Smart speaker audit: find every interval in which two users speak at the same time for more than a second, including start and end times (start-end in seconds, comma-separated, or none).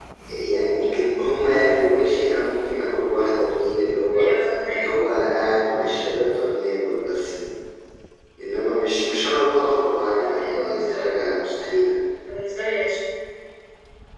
10.2-11.5